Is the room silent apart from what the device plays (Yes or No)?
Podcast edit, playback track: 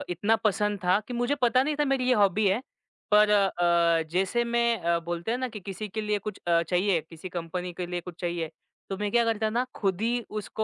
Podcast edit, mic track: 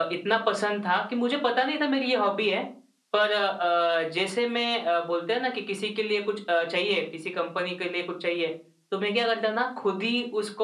Yes